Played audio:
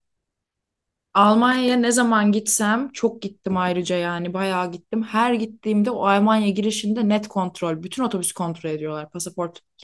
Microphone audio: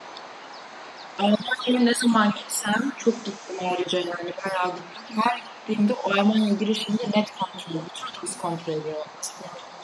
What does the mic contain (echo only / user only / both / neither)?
echo only